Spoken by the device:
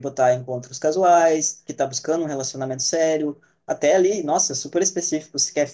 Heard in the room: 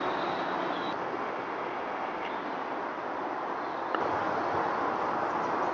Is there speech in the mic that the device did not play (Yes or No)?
No